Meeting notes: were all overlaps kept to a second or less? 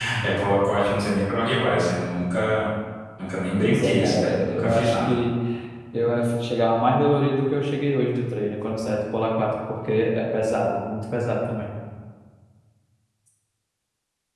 No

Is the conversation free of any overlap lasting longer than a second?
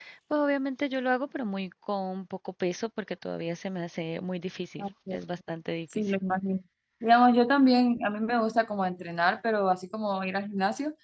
Yes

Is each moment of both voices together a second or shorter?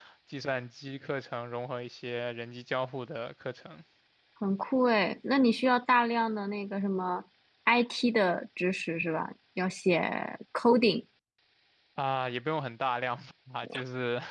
Yes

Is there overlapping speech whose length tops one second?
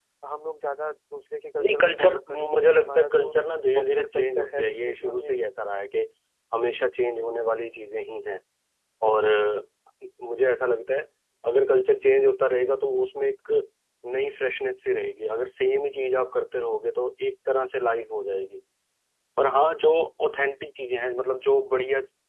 Yes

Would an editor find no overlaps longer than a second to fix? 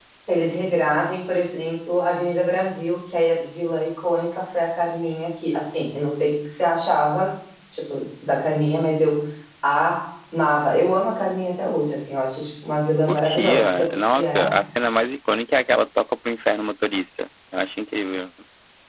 No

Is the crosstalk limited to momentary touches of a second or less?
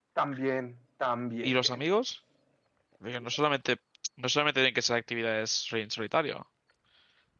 Yes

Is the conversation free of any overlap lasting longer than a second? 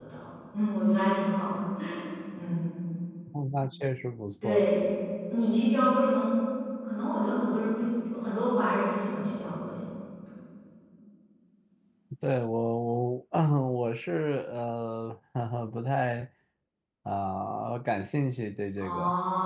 Yes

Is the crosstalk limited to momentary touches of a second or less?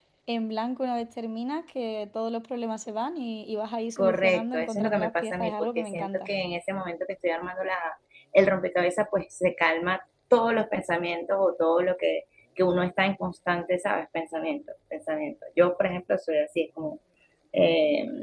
No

